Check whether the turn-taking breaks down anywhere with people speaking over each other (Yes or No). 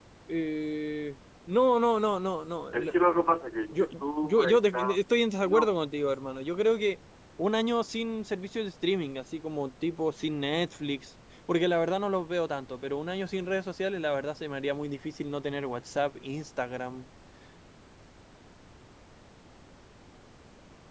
Yes